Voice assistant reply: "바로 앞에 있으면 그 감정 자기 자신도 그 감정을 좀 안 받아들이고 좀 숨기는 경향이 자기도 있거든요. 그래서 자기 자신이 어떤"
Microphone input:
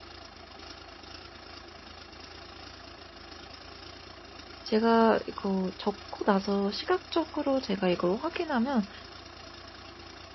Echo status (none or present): none